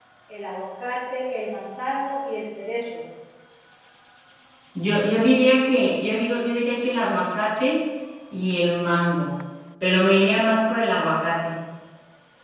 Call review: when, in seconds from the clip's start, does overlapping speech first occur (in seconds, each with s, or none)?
none